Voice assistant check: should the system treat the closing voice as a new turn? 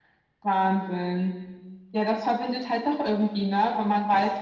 No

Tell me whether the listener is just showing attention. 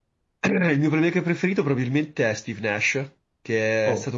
Yes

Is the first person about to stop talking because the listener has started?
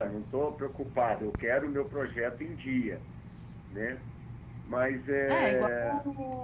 Yes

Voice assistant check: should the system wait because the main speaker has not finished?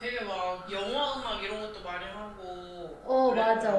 No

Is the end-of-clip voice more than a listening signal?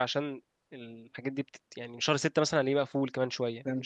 Yes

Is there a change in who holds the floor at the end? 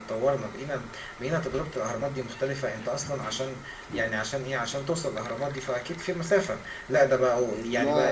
No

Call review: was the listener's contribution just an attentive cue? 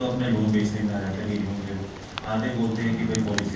Yes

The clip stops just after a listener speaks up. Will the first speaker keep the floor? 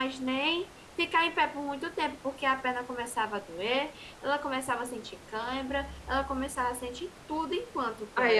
No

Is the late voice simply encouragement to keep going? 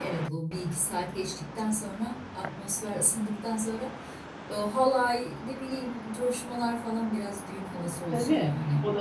No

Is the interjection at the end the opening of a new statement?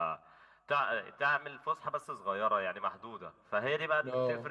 No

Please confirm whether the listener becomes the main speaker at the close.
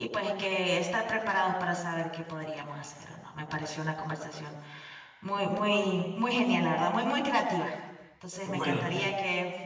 No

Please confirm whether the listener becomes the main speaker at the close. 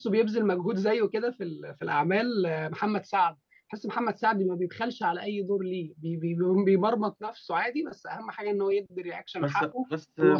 Yes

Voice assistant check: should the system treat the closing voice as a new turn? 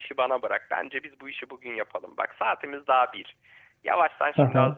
No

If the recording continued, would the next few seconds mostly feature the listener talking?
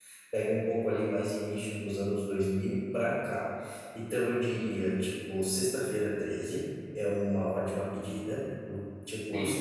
No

